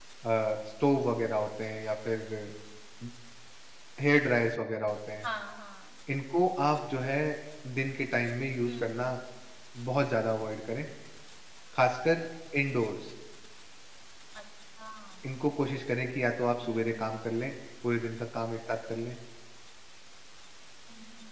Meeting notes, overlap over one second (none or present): none